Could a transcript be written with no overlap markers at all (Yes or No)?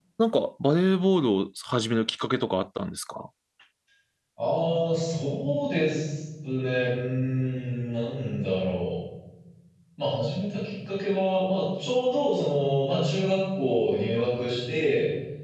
Yes